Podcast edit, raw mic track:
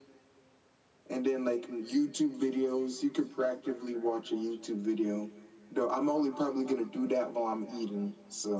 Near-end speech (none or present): none